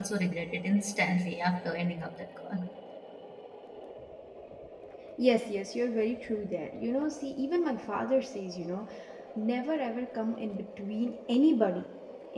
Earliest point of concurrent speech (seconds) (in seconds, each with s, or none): none